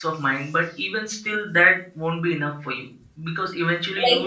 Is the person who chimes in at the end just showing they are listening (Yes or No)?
No